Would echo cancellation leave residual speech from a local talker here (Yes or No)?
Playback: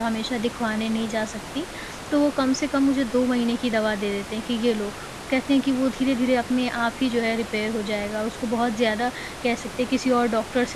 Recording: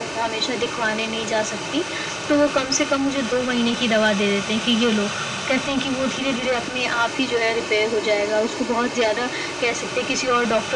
No